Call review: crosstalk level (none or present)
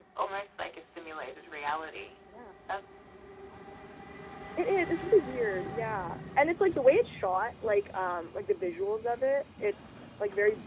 none